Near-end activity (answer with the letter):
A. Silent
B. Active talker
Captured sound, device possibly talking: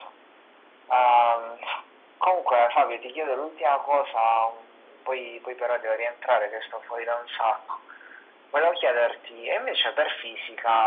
A